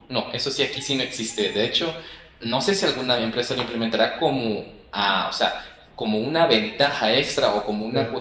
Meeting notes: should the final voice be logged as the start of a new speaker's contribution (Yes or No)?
Yes